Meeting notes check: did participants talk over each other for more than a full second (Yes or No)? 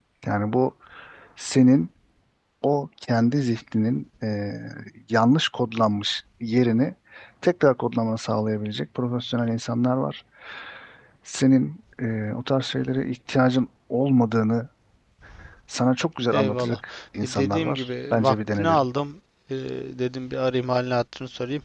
Yes